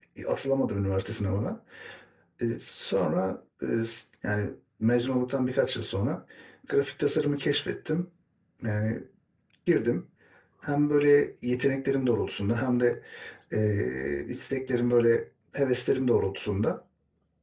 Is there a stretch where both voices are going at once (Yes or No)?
No